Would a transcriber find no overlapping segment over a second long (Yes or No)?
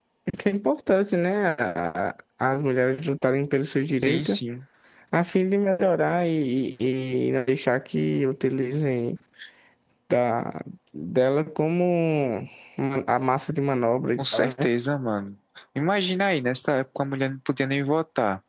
Yes